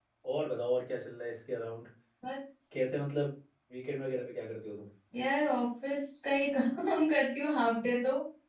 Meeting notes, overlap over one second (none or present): none